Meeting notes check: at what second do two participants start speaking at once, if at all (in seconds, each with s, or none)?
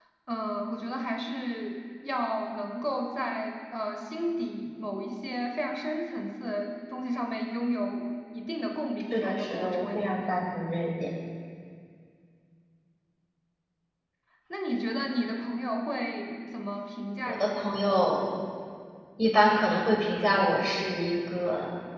9.1 s